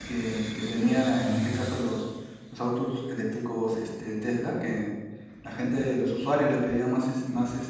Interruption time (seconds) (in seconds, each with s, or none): none